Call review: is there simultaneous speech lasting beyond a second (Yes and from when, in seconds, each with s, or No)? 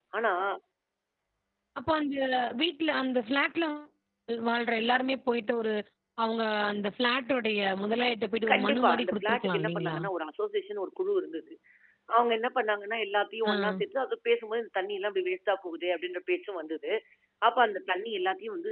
Yes, from 8.5 s